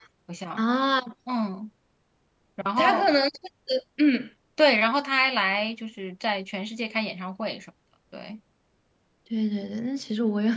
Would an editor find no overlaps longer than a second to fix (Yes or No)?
Yes